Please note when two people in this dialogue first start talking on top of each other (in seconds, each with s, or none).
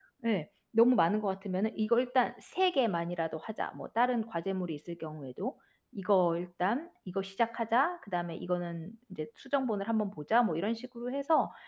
none